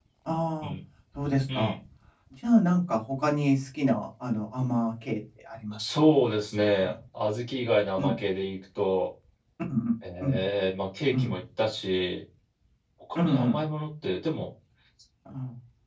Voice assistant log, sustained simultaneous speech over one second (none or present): none